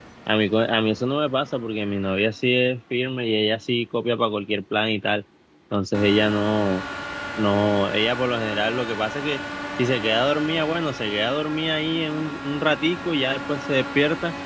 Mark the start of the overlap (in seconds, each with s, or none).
none